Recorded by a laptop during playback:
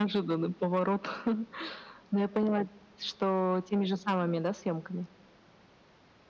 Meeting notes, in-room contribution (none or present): none